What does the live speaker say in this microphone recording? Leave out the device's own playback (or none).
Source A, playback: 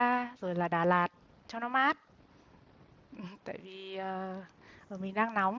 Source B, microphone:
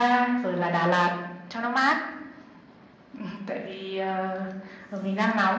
none